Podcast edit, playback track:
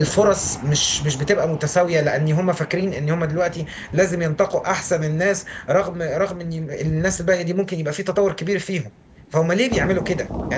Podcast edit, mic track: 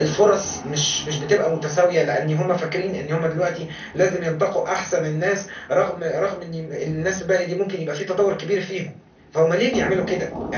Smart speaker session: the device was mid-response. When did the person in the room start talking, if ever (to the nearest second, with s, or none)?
none